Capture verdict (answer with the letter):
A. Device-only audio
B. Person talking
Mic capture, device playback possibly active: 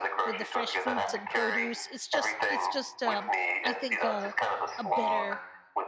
B